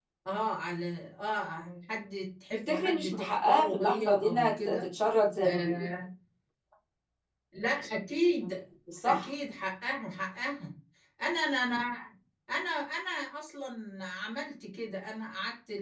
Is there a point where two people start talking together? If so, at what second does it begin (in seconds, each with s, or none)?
2.5 s